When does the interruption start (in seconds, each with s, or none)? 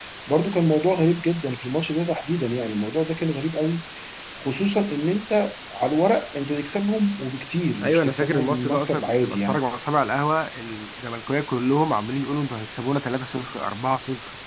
7.8 s